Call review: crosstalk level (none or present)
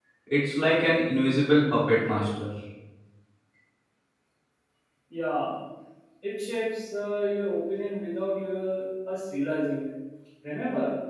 none